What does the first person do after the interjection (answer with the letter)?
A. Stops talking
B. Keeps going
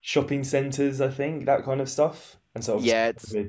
A